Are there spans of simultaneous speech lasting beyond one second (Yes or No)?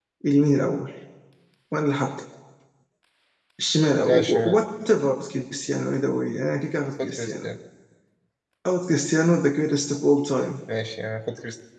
No